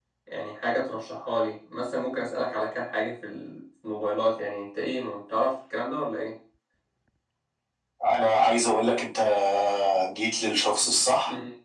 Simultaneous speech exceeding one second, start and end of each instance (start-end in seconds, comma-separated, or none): none